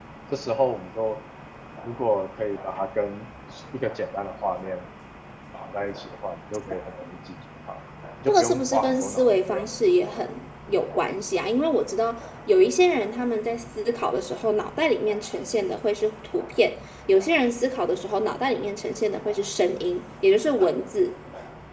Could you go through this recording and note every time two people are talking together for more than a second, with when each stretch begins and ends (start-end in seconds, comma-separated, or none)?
8.3-9.7